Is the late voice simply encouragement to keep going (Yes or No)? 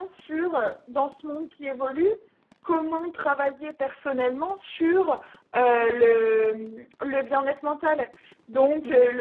Yes